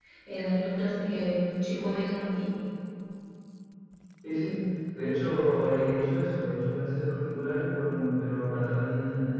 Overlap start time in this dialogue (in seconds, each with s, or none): none